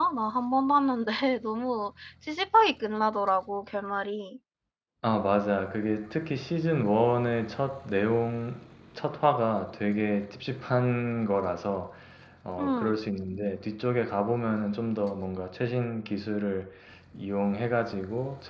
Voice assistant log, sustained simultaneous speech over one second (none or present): none